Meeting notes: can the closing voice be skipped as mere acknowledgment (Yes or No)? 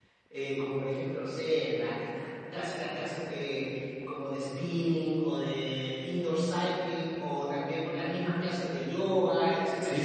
No